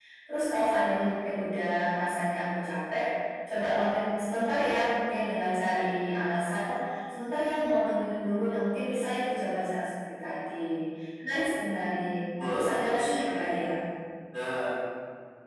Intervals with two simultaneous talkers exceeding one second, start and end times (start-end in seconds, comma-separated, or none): 12.4-13.7